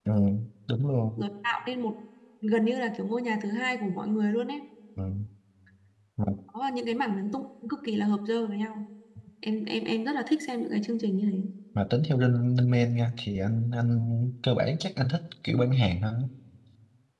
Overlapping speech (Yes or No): No